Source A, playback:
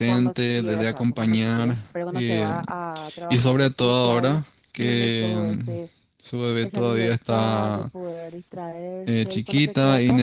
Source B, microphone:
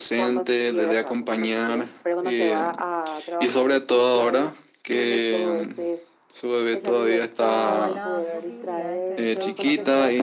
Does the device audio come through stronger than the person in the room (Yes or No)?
Yes